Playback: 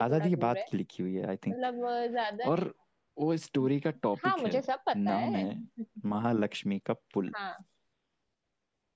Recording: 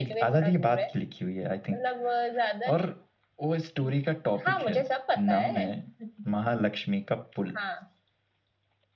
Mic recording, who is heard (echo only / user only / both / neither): echo only